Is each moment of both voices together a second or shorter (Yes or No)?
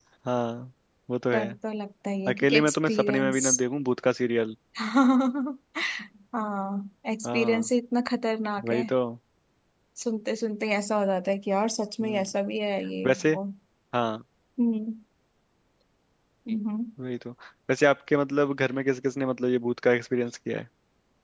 No